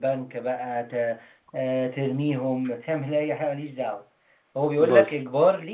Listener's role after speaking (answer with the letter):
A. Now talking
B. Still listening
B